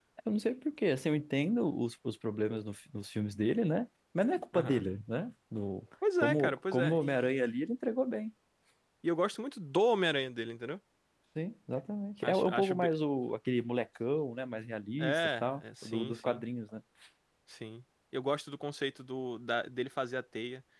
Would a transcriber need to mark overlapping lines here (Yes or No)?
Yes